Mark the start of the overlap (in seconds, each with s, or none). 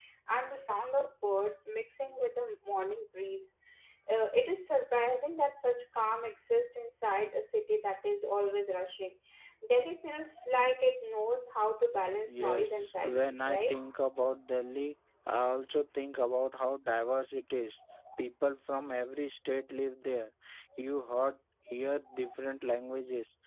12.3 s